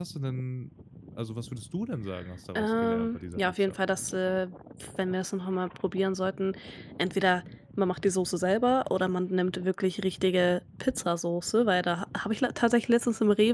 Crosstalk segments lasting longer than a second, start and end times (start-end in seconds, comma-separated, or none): 2.5-3.8